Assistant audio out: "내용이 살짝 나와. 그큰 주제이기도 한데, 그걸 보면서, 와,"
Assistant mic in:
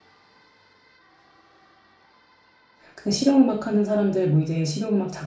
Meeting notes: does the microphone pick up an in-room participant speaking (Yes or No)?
Yes